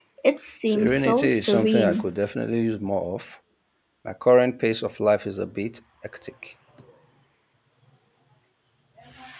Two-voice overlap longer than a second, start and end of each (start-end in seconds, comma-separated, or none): 0.7-2.1